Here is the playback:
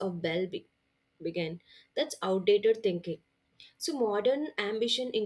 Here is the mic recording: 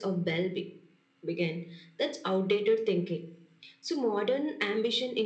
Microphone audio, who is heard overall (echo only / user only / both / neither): echo only